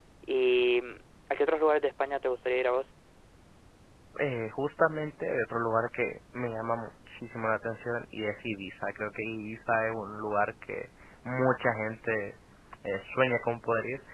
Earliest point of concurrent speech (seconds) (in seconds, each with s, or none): none